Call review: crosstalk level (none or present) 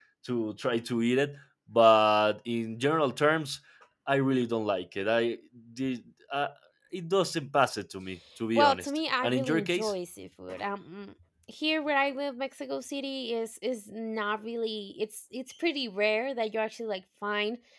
present